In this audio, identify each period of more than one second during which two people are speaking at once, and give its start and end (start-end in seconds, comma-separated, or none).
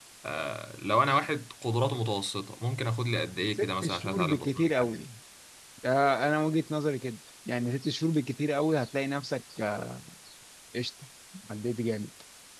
3.6-4.9